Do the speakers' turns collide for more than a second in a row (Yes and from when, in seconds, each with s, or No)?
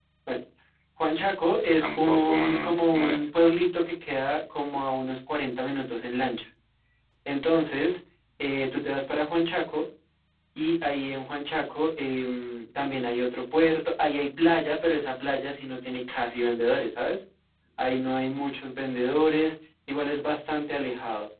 Yes, from 1.8 s